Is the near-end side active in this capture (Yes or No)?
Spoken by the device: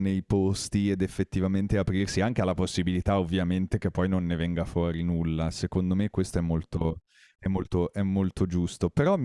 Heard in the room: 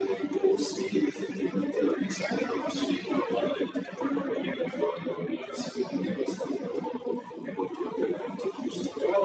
No